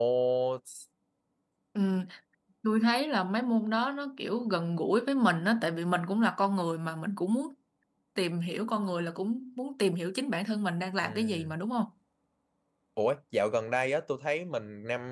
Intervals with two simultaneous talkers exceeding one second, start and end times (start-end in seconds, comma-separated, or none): none